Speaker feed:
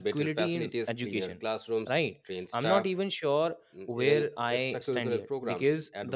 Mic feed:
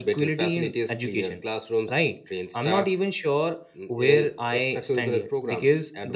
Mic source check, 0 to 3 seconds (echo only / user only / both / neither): echo only